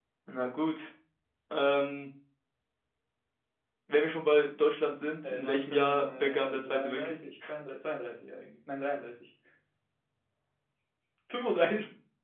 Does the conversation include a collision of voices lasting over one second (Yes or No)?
Yes